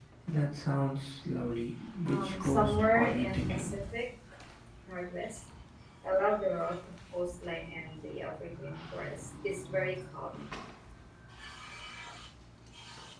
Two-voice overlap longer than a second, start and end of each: 2.1-3.8

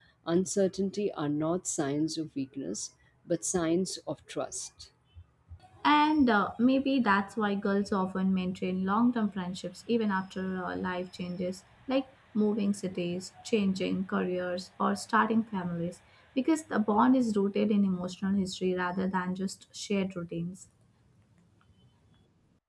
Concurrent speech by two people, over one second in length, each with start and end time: none

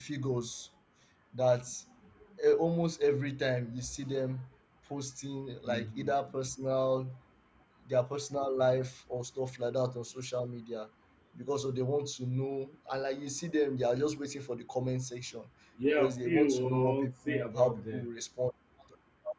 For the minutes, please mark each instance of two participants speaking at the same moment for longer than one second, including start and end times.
15.9-18.1

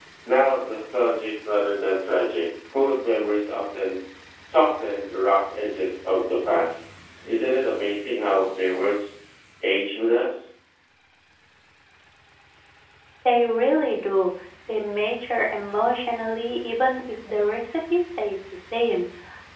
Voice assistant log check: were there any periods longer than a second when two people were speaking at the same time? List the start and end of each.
none

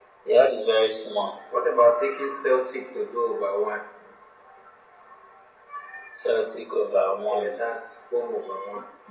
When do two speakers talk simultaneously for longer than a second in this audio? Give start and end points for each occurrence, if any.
none

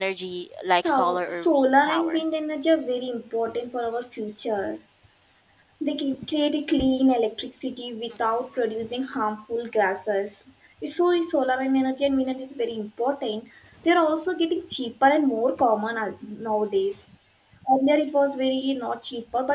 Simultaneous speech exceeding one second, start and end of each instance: 0.8-2.2

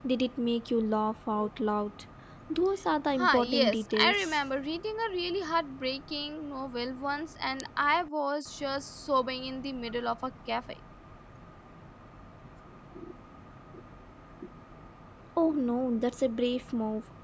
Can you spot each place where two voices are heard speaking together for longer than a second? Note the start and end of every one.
3.1-4.4

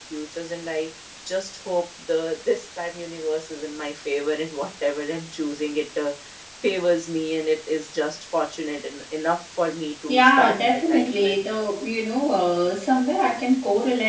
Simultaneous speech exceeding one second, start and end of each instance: 10.2-11.4

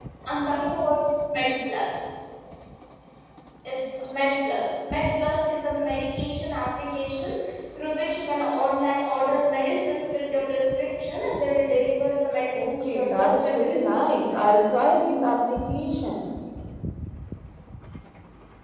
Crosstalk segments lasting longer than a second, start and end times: 12.6-14.7

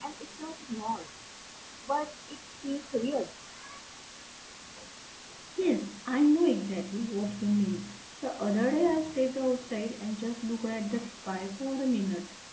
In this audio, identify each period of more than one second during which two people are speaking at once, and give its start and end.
none

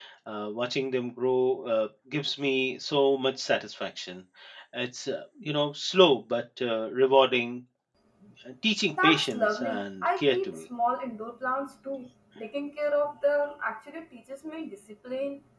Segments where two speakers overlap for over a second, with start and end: 8.9-10.6

